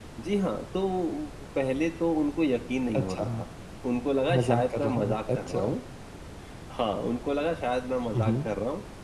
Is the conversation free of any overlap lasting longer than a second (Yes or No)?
No